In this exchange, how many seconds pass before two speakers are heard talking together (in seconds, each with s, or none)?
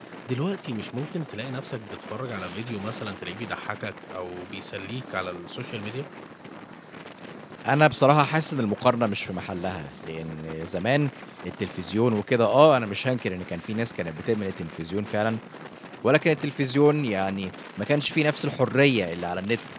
none